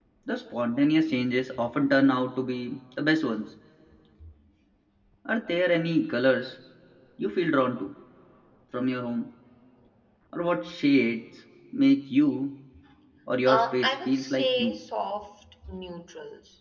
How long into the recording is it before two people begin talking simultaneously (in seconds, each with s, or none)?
13.5 s